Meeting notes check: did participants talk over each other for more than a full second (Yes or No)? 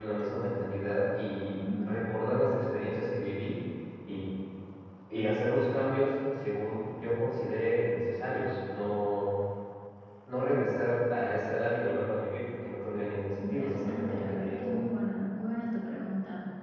Yes